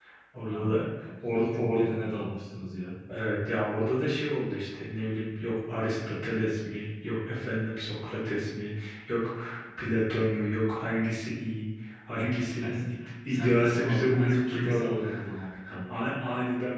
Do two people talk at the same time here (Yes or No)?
Yes